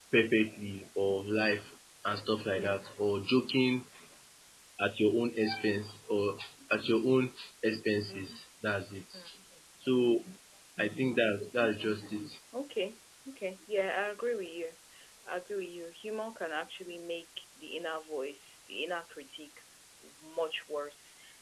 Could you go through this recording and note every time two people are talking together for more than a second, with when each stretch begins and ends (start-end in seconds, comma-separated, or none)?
none